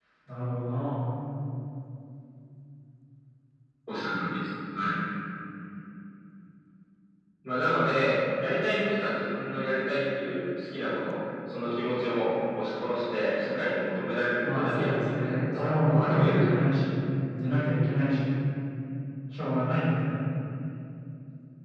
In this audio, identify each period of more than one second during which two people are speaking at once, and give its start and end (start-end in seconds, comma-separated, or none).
14.4-16.7